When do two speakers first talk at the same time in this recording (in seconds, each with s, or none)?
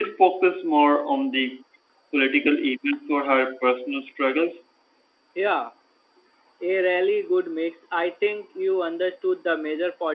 none